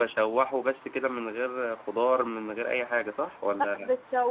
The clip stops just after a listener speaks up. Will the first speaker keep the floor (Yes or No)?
No